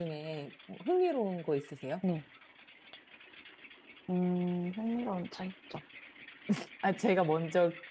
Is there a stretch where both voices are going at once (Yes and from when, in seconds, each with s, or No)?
No